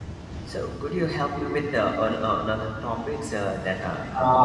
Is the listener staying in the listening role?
No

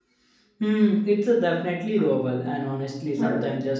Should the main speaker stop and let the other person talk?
No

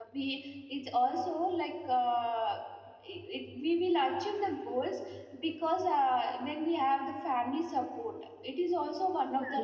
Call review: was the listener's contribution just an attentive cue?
No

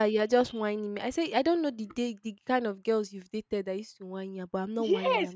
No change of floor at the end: No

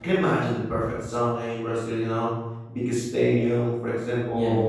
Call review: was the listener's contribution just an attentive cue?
Yes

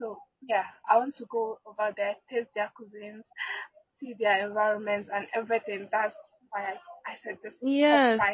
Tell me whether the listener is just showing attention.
No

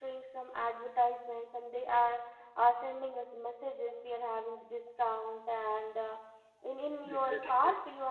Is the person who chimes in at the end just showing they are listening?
Yes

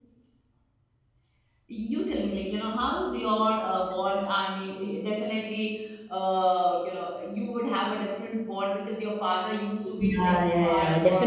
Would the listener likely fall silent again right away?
No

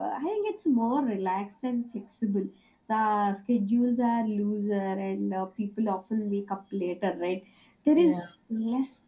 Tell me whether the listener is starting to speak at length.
No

